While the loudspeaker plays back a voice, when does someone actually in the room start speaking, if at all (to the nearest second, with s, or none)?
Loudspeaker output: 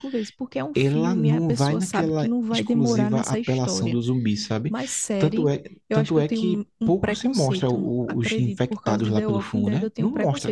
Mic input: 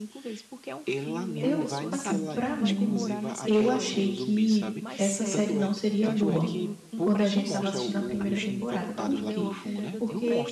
1 s